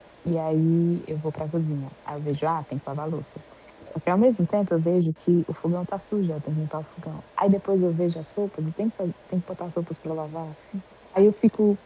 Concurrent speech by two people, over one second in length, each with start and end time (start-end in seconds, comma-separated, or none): none